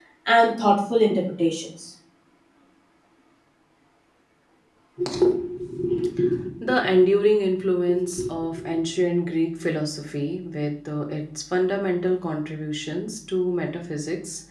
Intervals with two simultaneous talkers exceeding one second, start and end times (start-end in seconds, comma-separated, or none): none